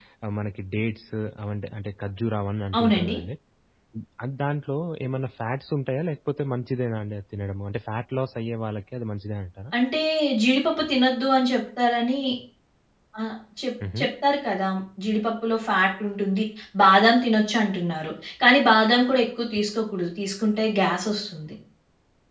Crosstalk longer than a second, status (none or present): none